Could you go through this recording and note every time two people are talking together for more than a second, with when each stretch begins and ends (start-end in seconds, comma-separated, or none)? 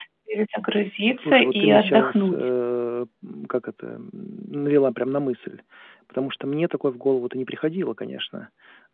1.2-2.5